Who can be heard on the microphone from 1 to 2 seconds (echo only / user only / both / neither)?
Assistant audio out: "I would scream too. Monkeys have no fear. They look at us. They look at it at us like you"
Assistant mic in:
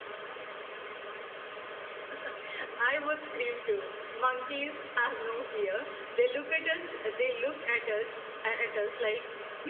neither